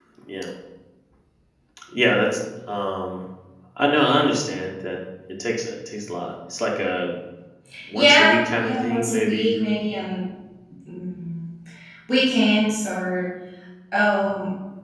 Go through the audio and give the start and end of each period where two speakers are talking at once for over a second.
8.0-9.5

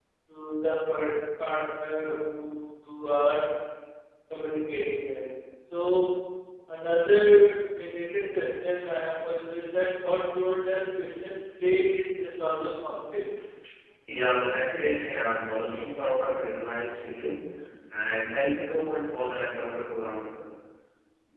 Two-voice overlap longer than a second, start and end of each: none

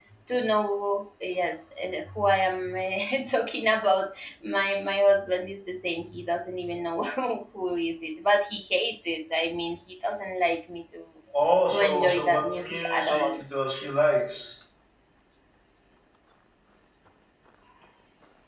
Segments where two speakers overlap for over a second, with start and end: 11.7-13.5

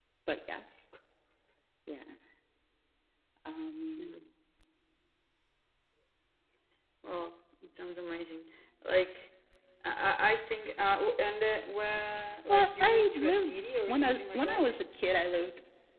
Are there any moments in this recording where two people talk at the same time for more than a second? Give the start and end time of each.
12.5-14.7

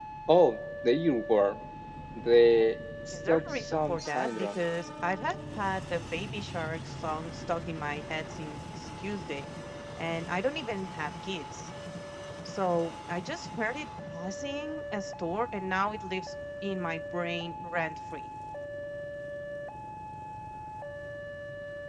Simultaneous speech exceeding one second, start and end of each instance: 3.1-4.6

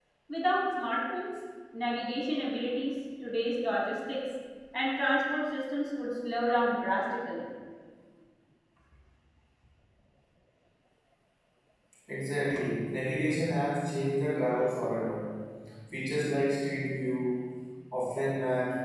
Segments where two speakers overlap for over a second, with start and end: none

